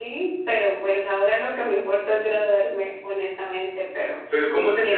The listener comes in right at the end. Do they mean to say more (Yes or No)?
Yes